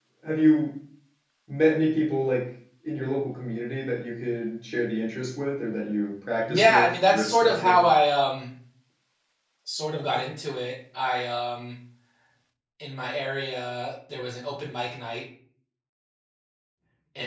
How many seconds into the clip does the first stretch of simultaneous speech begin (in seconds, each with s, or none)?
6.5 s